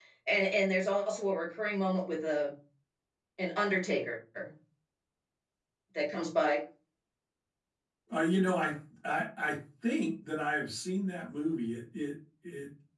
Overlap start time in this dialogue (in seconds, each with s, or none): none